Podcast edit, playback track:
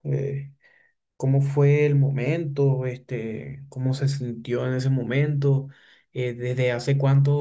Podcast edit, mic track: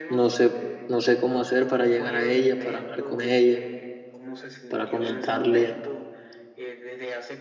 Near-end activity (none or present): present